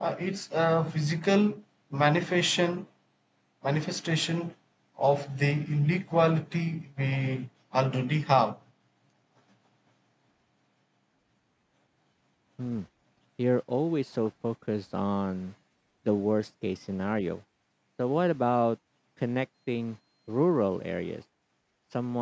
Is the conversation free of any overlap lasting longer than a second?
Yes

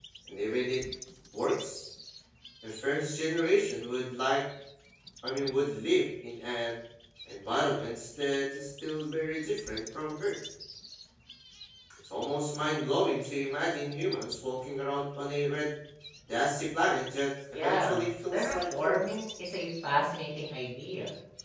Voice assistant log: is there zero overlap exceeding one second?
No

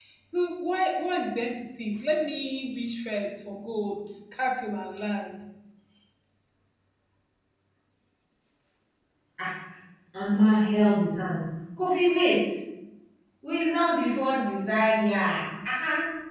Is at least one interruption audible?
No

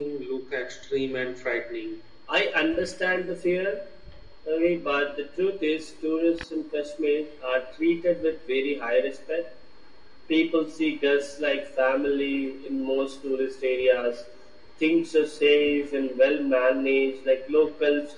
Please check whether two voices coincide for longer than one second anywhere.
No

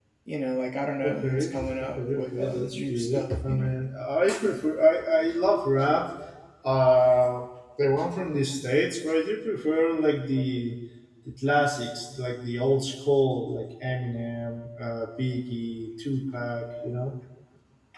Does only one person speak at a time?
No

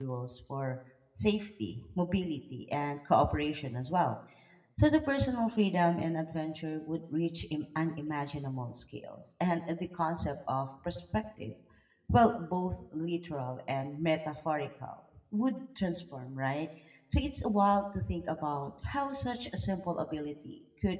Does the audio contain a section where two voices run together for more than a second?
No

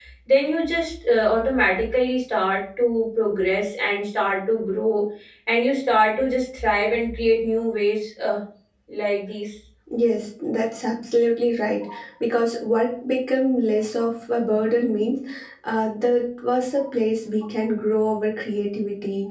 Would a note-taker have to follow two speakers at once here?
No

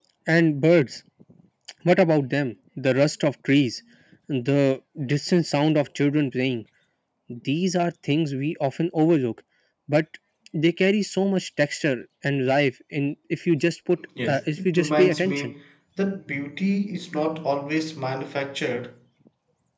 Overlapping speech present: Yes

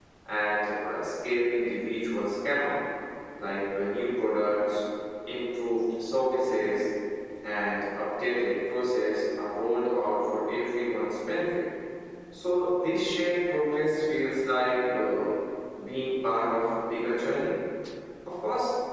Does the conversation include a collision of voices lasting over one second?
No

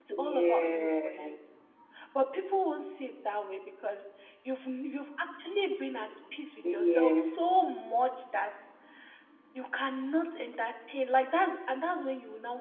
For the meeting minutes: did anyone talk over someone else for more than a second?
Yes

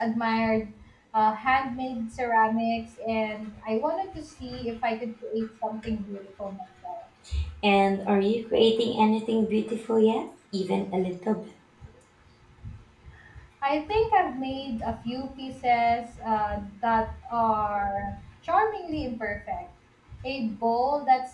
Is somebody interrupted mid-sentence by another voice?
No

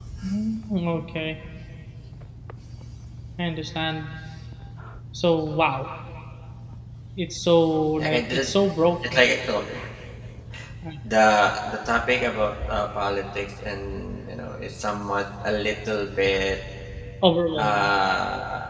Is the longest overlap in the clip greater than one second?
No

